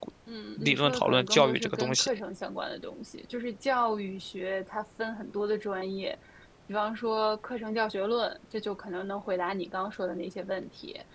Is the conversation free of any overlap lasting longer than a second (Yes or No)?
No